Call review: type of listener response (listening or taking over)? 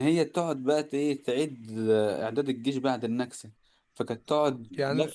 listening